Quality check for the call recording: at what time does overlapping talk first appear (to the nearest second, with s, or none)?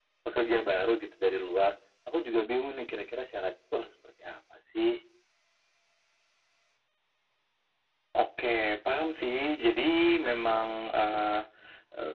none